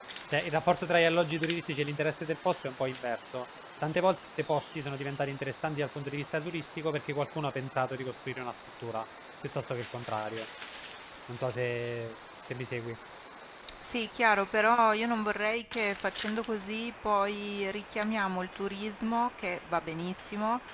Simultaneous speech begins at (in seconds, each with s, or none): none